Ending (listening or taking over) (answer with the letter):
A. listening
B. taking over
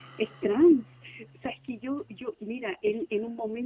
A